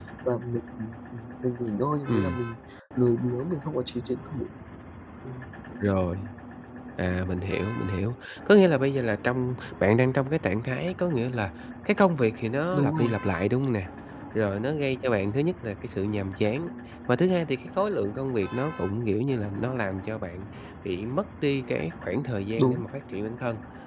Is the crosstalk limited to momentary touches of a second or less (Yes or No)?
Yes